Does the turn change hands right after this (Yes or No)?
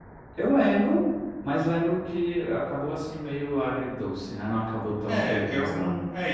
Yes